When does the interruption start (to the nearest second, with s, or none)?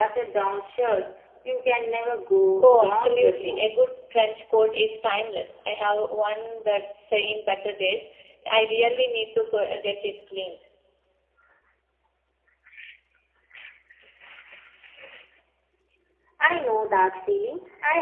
3 s